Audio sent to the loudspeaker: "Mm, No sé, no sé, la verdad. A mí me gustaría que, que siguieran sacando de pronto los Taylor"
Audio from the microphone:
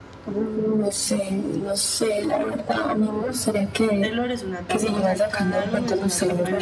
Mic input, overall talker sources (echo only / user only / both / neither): both